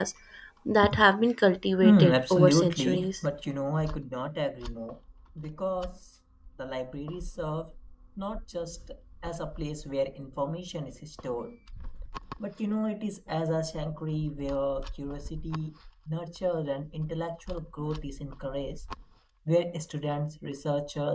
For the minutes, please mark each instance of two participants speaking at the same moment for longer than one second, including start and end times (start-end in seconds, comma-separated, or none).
1.8-3.1